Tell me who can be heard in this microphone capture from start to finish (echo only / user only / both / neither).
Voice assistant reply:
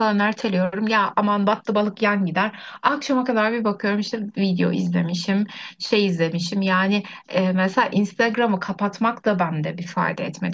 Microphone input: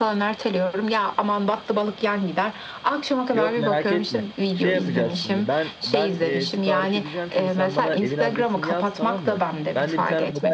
both